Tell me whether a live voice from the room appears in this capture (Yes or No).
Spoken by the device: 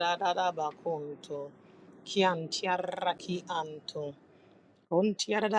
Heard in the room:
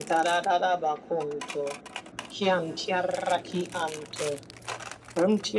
No